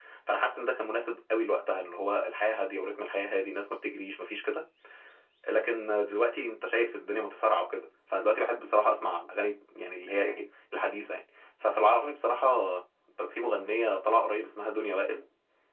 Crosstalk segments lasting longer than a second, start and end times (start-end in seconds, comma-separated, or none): none